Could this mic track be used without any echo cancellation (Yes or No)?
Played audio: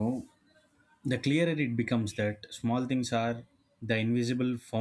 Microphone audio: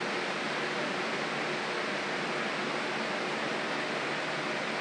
Yes